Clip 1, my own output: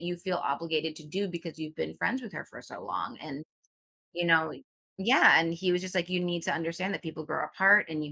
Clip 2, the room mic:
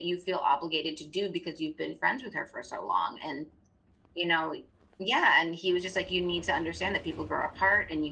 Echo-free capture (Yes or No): No